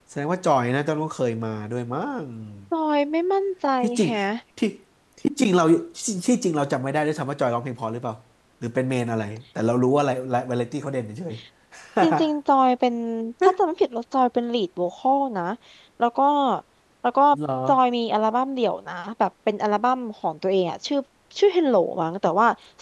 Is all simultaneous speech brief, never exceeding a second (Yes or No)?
Yes